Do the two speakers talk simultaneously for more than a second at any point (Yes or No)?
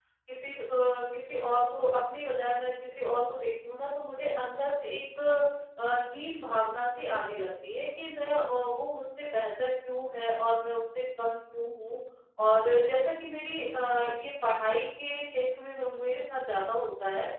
No